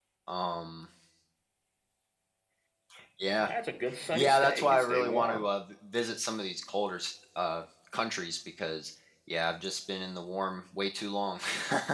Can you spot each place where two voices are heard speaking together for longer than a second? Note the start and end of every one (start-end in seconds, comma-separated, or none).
4.1-5.4